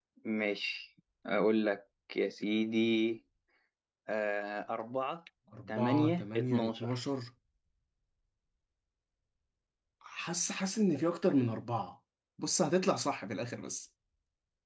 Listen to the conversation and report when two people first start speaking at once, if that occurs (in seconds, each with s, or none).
5.7 s